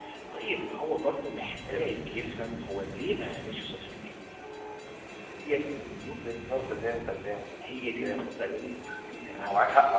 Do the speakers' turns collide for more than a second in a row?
No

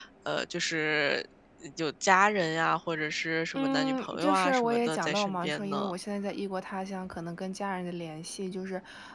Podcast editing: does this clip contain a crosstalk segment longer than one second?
Yes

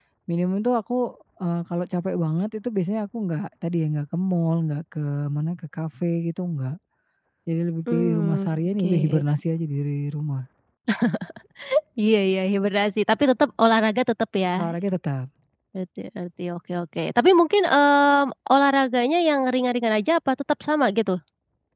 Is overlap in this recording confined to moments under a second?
No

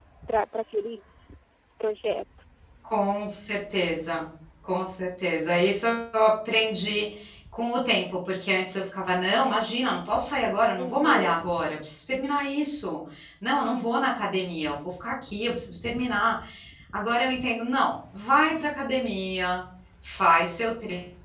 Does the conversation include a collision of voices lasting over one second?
No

